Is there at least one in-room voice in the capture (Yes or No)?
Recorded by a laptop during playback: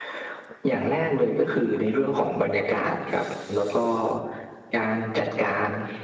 No